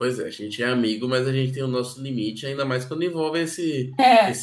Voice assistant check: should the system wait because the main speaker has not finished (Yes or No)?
Yes